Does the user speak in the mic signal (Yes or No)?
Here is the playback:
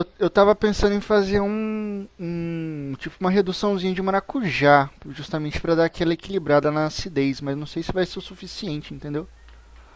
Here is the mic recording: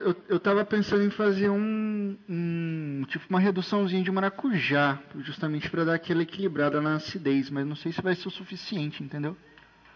No